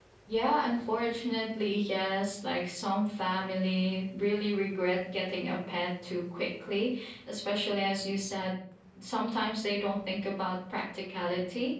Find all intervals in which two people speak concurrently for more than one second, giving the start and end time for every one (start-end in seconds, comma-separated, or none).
none